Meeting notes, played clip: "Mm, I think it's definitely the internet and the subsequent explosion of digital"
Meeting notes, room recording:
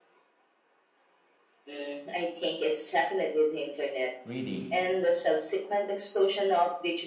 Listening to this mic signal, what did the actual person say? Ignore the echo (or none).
reading,